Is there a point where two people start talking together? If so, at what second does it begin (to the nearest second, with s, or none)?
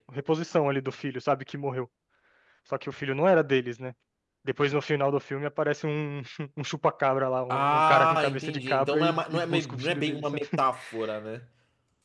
7 s